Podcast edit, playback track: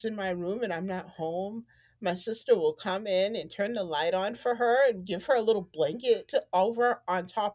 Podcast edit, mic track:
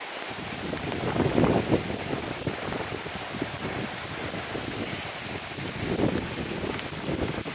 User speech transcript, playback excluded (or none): none